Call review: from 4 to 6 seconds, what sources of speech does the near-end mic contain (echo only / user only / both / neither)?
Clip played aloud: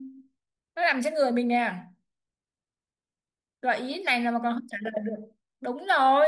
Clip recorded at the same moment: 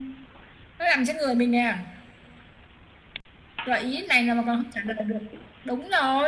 echo only